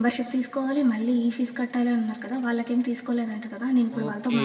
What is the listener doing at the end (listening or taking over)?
taking over